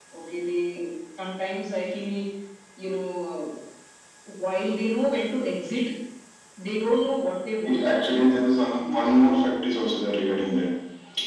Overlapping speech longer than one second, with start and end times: 7.7-9.4

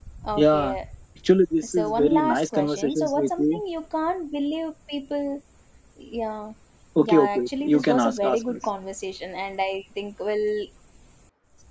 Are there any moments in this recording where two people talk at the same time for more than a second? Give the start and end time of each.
1.6-3.6, 7.0-8.6

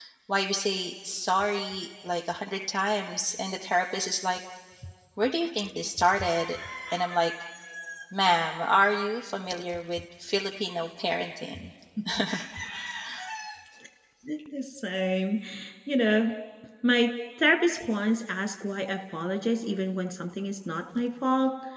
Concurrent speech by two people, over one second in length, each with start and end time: none

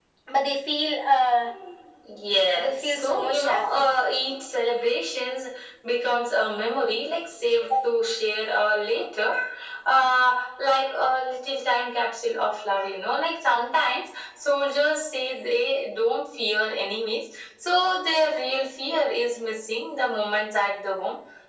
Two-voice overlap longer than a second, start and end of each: 2.5-3.9

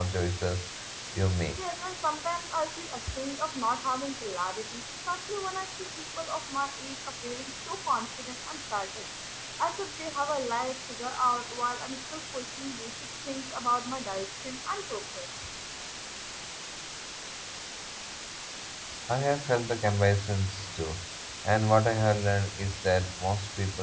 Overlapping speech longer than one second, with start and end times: none

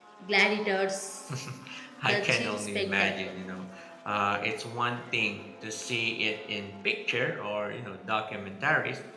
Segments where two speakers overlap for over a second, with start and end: 2.0-3.4

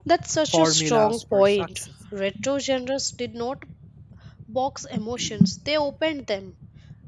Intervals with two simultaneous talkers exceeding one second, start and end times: 0.5-1.9

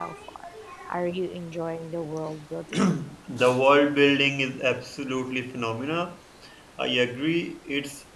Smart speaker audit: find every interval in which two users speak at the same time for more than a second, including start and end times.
none

